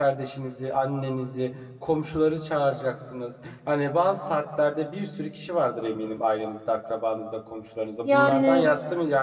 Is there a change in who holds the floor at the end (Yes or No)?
No